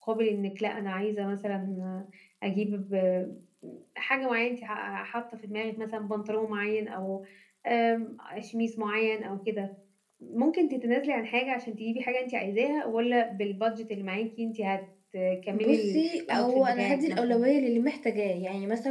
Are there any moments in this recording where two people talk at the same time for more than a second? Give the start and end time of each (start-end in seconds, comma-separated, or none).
15.5-17.4